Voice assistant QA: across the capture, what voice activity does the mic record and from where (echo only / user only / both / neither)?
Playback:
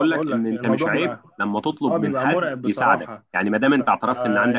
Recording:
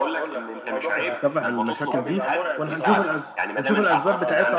both